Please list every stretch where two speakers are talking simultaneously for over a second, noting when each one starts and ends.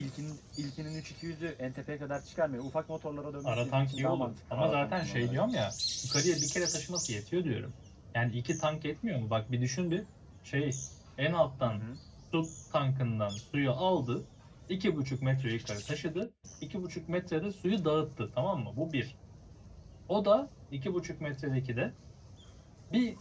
3.4-5.3

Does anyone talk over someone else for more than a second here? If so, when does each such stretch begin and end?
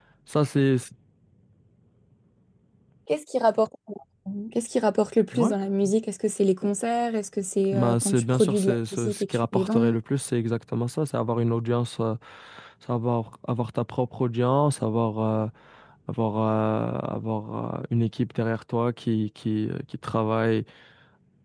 7.7-9.9

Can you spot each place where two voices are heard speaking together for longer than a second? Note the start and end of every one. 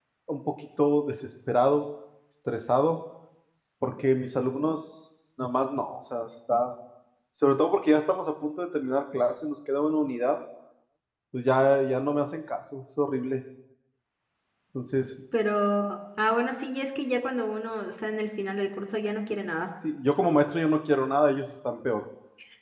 none

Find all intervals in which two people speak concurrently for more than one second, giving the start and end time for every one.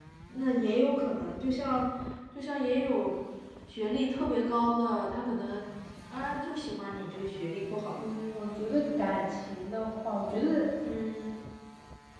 none

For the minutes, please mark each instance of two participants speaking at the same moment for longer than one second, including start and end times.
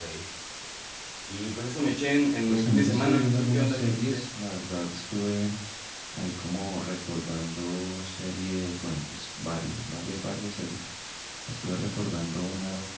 2.5-4.2

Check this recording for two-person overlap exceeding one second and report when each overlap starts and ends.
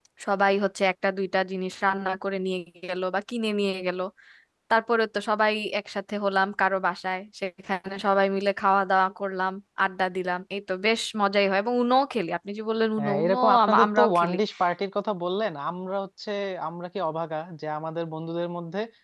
13.0-14.3

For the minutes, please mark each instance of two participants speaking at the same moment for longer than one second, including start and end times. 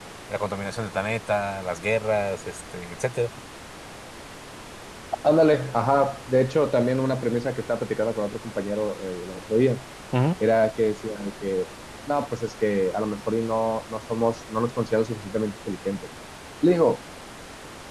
none

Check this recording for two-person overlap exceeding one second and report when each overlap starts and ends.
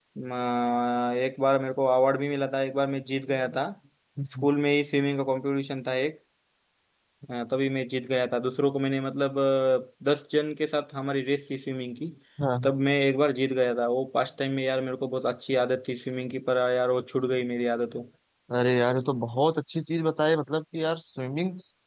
none

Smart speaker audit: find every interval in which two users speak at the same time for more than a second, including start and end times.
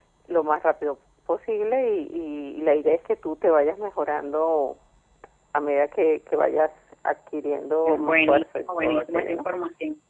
7.8-9.4

